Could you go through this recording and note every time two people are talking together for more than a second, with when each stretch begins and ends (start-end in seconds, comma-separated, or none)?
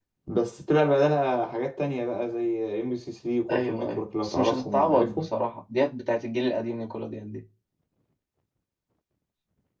3.5-5.3